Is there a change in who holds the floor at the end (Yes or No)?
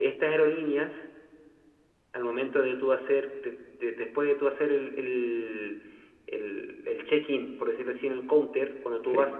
No